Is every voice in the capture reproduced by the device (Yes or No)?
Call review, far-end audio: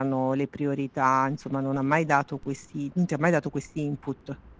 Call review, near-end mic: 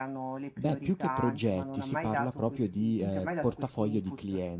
No